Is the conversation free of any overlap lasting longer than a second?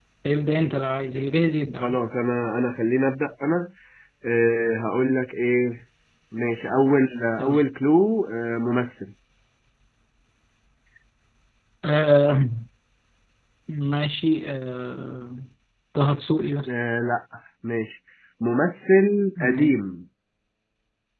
Yes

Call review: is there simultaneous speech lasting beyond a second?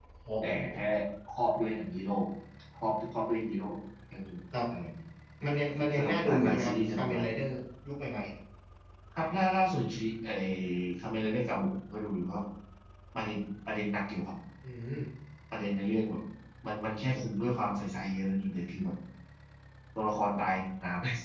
Yes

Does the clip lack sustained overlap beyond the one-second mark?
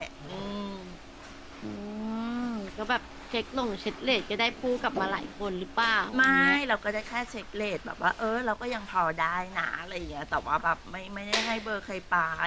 Yes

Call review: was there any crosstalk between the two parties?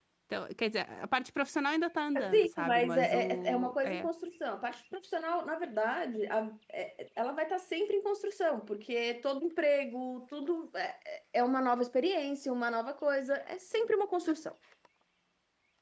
Yes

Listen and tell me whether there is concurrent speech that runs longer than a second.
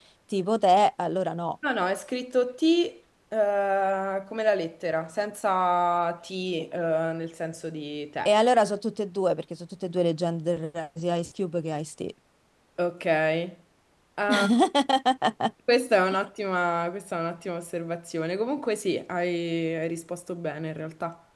No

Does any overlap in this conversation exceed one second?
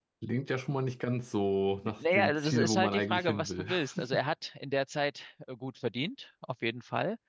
Yes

